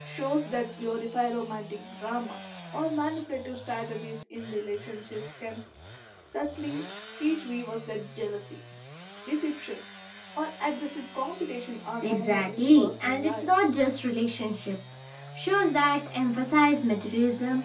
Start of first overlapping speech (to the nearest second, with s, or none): 12 s